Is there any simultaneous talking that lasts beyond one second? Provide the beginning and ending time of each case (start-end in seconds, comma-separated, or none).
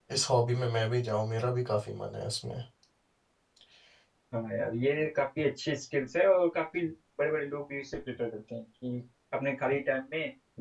none